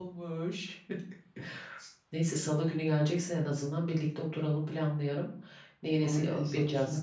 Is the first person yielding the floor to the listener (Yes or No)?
Yes